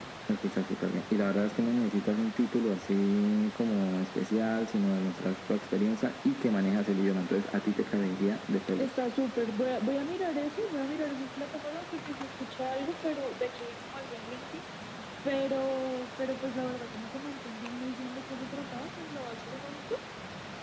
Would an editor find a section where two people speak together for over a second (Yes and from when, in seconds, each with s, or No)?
No